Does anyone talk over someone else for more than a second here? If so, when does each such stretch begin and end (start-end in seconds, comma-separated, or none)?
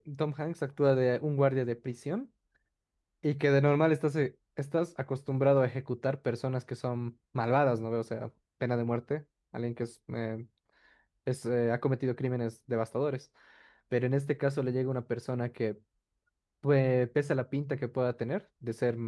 none